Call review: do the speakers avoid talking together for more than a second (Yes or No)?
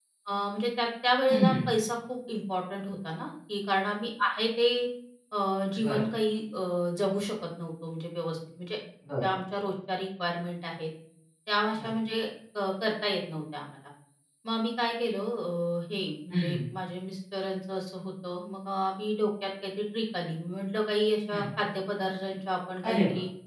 Yes